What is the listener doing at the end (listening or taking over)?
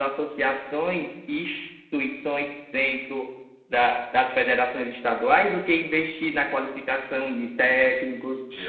listening